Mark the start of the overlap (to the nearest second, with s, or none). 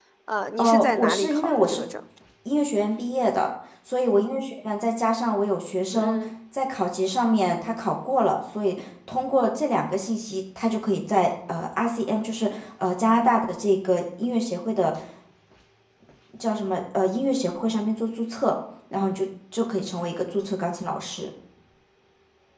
1 s